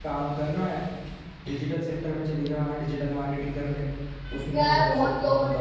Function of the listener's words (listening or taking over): taking over